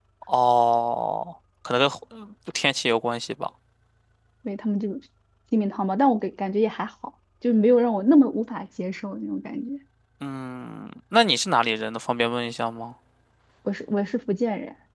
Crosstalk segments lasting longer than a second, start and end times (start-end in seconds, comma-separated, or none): none